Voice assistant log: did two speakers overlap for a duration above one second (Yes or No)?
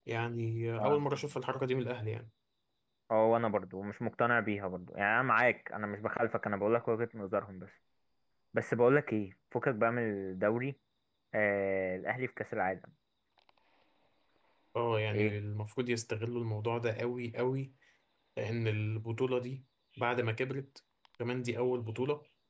No